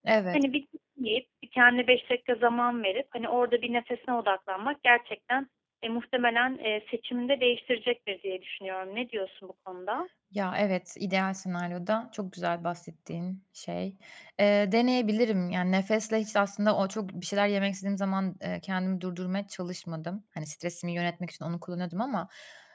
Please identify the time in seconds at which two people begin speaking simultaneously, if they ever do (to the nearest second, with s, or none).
none